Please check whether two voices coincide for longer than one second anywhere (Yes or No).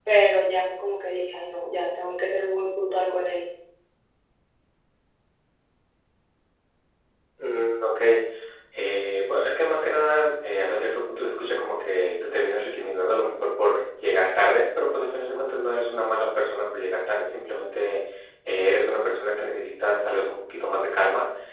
No